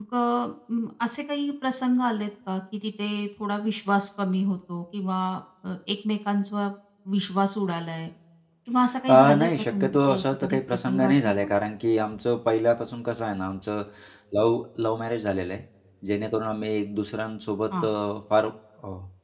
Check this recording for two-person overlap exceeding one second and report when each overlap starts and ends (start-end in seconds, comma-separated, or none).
9.1-11.5